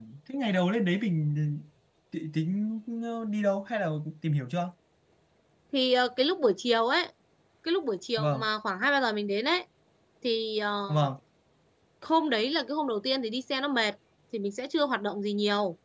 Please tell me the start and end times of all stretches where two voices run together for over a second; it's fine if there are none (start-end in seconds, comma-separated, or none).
none